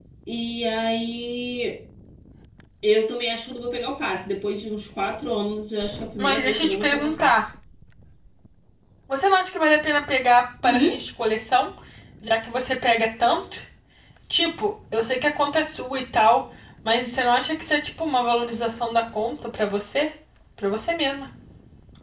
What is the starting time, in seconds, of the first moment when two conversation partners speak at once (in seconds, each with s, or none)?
6.2 s